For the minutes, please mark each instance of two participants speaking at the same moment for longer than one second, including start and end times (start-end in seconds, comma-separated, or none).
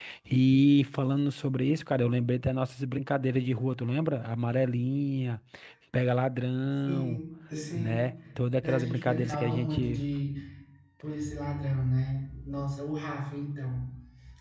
8.6-10.0